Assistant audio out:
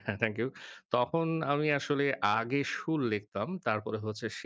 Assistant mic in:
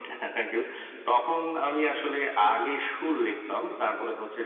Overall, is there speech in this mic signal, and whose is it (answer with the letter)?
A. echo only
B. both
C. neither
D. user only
A